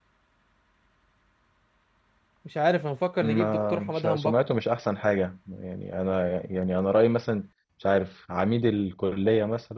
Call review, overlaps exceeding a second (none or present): present